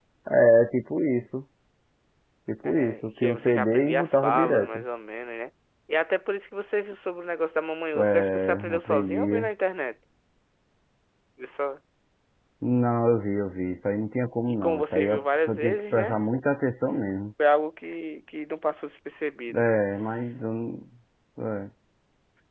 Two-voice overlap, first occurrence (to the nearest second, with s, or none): 3 s